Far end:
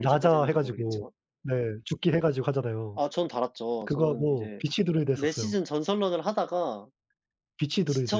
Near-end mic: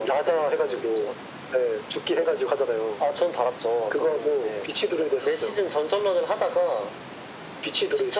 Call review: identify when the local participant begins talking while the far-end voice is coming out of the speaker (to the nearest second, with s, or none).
none